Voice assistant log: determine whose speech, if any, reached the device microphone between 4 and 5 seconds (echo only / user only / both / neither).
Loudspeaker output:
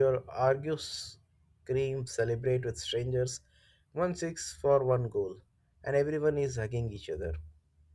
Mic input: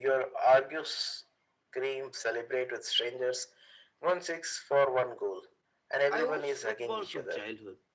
echo only